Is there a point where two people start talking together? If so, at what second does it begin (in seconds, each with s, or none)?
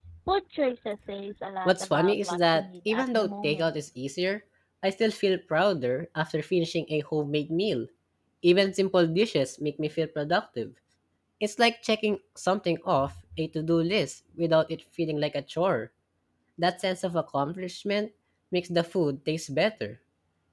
1.6 s